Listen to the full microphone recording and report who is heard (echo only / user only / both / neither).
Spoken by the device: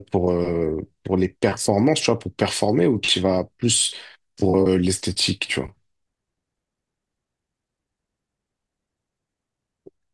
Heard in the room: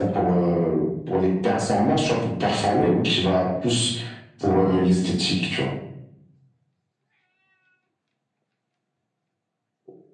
echo only